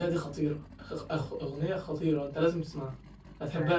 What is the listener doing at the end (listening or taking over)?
listening